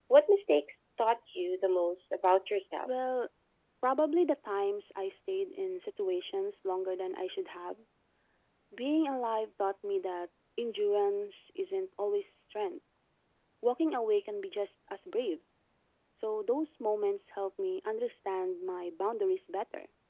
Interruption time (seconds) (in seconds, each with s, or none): none